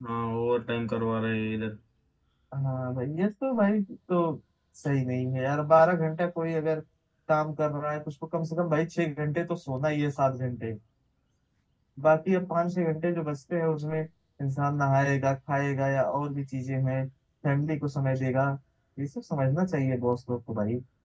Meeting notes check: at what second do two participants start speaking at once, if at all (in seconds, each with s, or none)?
none